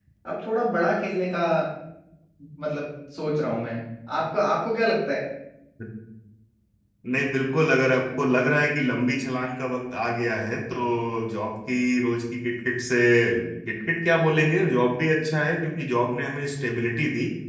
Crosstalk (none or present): none